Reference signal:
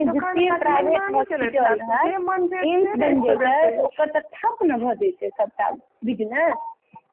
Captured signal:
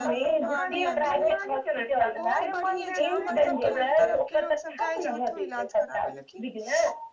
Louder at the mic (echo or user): echo